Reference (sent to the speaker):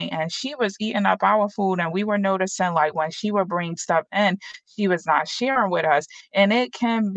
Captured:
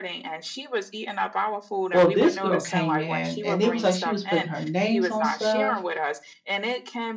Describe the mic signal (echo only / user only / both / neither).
both